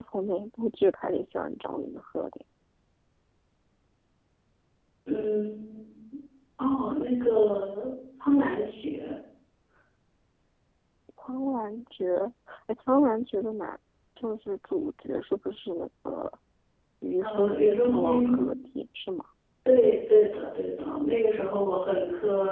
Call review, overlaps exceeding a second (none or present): present